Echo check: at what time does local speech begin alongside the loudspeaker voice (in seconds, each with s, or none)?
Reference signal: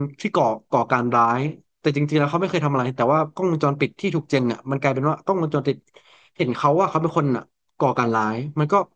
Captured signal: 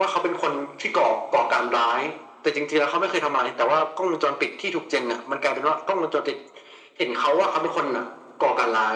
none